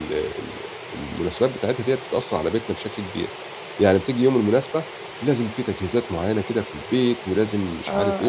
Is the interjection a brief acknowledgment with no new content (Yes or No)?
Yes